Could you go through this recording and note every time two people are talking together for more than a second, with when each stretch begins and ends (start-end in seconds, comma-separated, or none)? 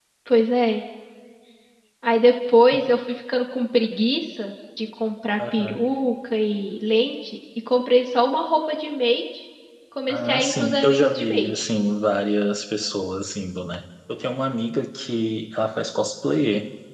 10.1-11.7